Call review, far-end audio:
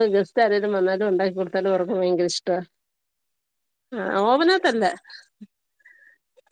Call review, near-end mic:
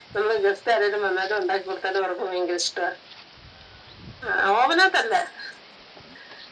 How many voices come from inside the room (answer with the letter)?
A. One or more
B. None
B